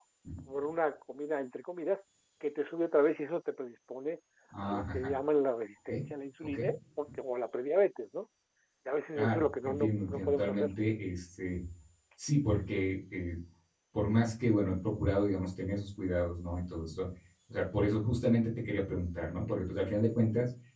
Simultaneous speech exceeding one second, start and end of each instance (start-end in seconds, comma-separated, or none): 9.2-10.7